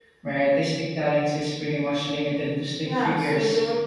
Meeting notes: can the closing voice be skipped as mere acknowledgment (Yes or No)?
No